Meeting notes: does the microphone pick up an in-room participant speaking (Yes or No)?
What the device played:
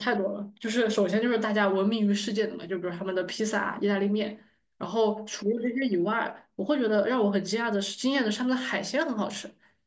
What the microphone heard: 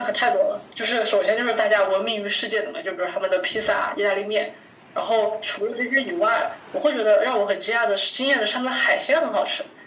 No